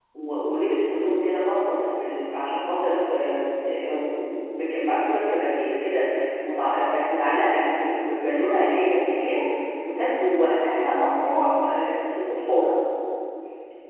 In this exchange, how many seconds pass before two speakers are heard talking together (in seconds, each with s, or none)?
none